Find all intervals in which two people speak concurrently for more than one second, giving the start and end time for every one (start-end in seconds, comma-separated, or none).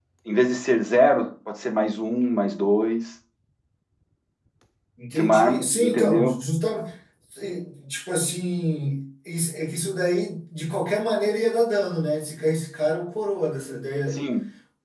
5.2-6.4